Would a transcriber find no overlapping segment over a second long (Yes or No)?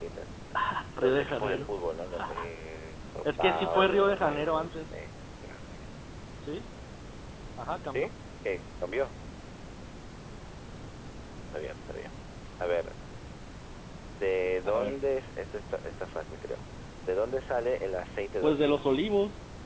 No